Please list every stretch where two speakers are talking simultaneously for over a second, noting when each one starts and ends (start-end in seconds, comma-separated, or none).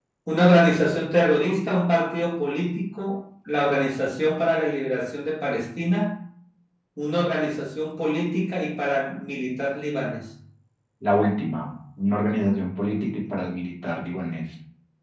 none